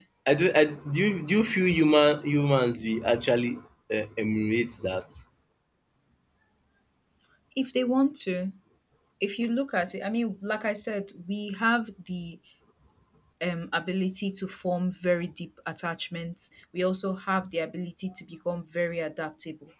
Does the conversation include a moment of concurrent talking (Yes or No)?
No